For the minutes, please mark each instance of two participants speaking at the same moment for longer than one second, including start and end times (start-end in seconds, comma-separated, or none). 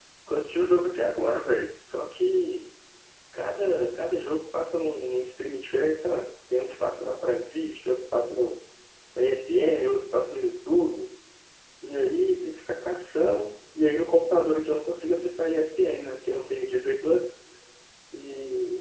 none